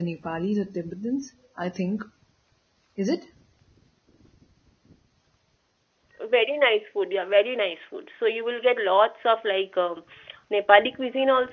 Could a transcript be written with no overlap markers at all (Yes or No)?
Yes